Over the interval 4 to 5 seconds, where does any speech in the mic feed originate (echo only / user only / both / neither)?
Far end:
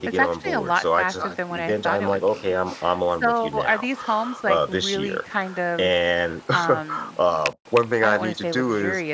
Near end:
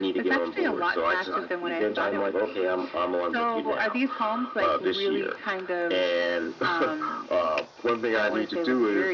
echo only